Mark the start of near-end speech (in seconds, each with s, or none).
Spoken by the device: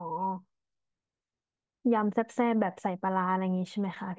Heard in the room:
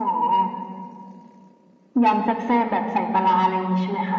none